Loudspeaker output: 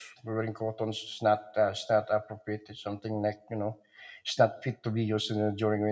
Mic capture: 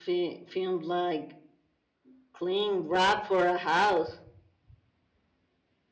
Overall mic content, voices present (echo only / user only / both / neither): user only